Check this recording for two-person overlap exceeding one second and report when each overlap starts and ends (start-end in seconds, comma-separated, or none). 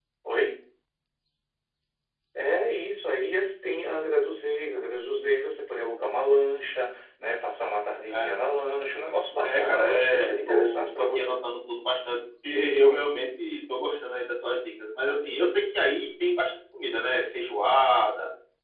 9.4-11.4